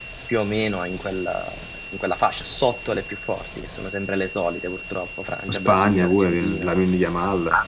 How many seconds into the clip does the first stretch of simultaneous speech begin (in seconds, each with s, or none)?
5.5 s